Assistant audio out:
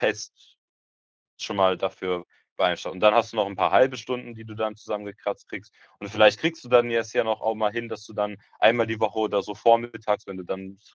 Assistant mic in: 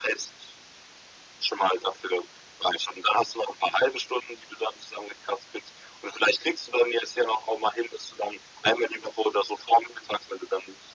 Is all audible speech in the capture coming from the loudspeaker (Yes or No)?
Yes